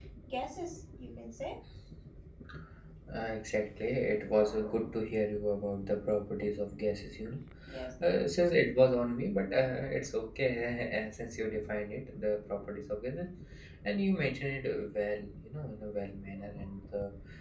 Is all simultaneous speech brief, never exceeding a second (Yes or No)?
Yes